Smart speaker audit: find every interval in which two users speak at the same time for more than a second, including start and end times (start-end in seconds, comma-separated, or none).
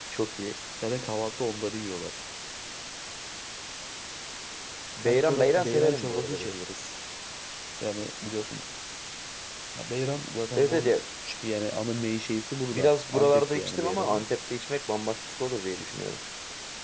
5.0-6.5, 12.7-14.2